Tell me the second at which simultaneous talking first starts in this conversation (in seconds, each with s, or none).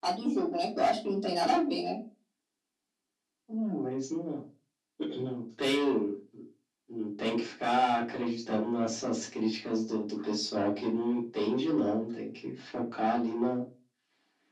none